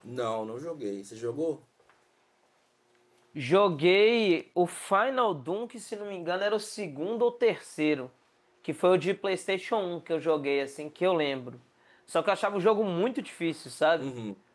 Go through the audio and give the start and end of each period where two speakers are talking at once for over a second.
none

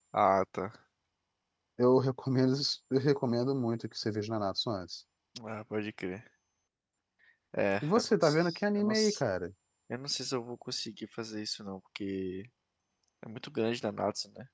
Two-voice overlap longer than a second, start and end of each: 8.0-9.2

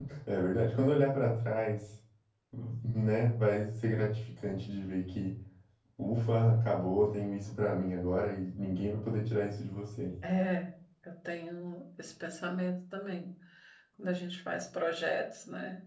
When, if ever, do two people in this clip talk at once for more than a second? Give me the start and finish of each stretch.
none

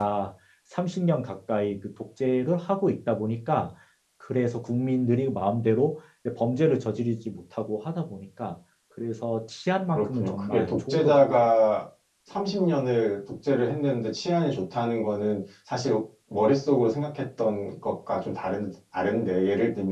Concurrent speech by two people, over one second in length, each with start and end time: 9.9-11.2

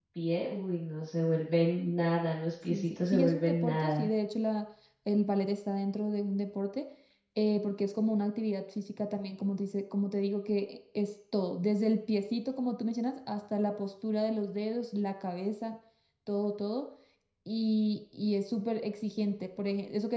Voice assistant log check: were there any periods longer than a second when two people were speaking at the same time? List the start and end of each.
2.6-4.1

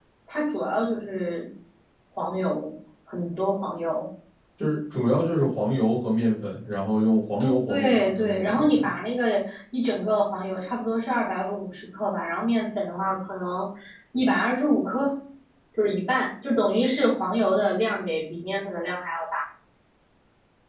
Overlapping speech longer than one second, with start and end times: 7.7-9.0

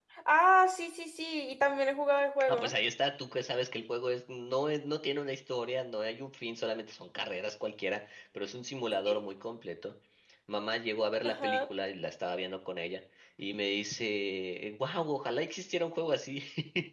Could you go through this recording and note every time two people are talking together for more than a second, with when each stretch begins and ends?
none

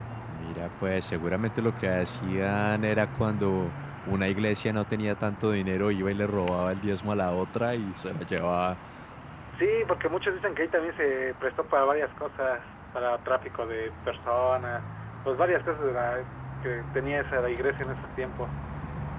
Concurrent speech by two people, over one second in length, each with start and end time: none

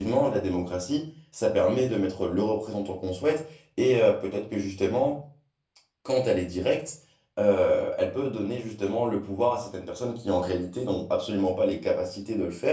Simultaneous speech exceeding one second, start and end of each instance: none

